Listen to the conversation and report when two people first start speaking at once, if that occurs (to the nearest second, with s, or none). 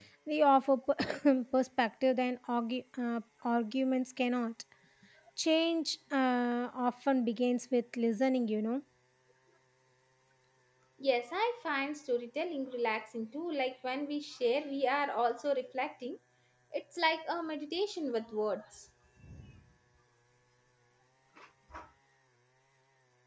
none